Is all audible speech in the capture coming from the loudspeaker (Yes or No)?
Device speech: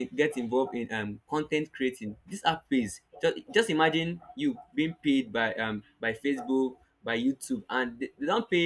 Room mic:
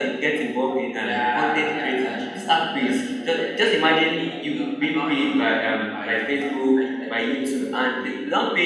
No